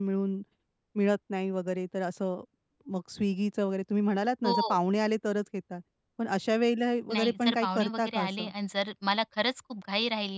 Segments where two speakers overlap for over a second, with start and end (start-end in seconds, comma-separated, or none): 7.1-8.5